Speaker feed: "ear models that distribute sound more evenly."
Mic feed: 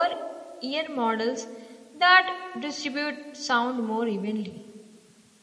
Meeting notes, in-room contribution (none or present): none